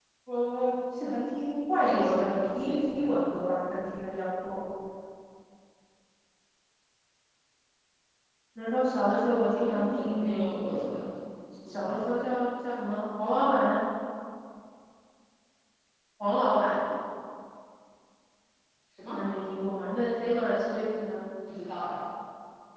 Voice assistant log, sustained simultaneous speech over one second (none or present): present